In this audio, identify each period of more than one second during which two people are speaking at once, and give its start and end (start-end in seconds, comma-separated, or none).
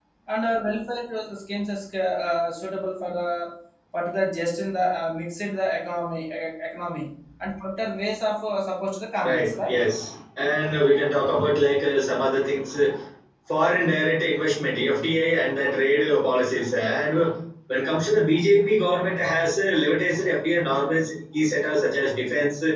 none